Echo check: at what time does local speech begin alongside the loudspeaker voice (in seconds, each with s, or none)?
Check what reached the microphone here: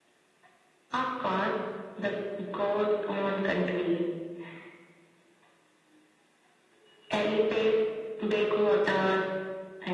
none